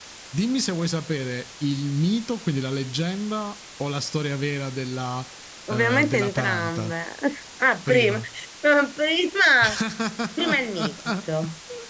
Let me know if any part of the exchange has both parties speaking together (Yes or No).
Yes